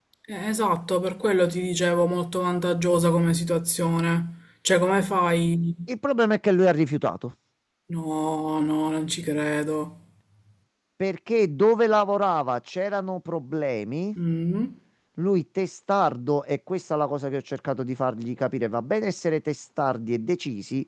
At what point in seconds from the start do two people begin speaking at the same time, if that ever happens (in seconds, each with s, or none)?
none